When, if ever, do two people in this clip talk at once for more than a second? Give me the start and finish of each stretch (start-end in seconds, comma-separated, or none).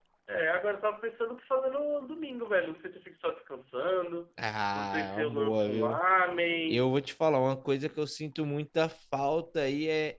4.7-6.0